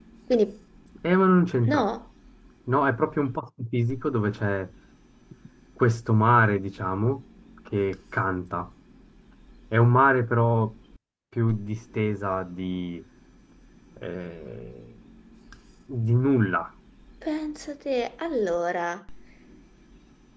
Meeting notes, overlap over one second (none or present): none